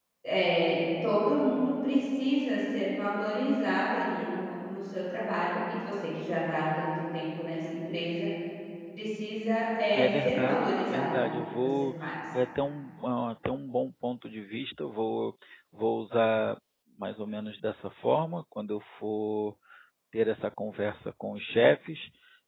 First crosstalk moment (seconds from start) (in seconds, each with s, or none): 9.9 s